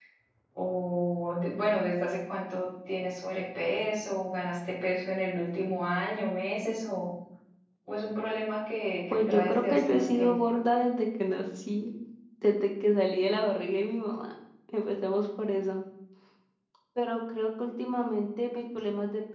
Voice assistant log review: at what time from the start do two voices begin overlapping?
9 s

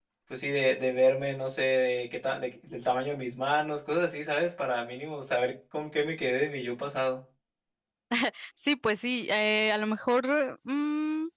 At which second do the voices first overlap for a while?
none

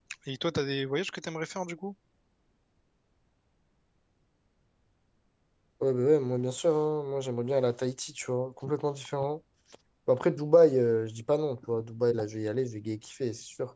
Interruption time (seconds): none

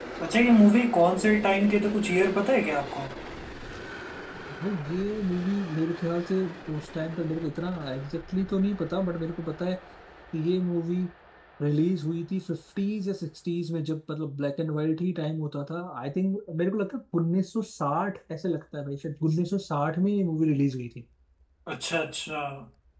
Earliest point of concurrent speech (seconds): none

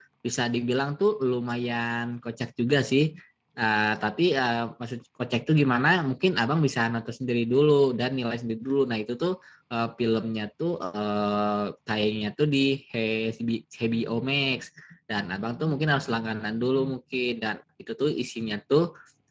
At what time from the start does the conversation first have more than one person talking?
none

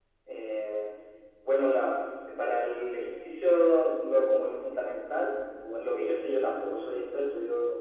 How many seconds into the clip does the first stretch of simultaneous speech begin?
none

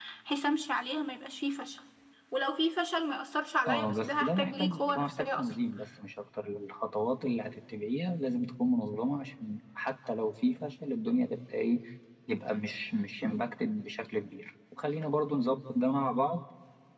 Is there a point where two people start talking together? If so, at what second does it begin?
4 s

